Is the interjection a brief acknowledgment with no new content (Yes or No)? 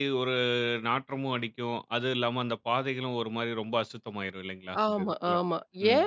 No